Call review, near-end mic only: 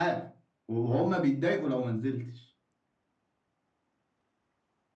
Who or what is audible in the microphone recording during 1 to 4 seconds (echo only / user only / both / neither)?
echo only